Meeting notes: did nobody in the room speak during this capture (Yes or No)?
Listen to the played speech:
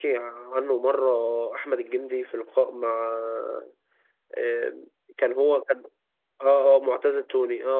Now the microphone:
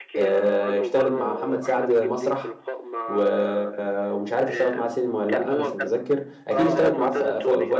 No